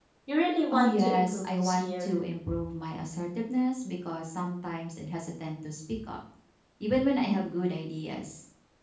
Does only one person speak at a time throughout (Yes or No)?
No